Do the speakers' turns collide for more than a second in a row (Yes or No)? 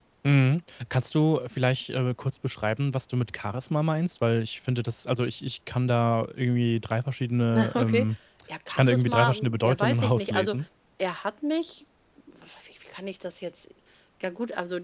Yes